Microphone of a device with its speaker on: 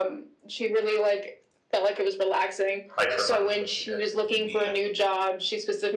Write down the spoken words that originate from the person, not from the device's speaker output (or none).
like for money, it, it can be